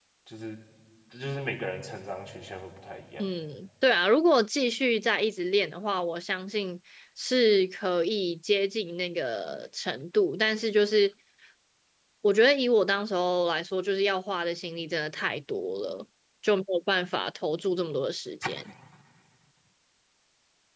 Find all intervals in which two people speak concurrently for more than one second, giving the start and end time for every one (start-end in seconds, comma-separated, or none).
none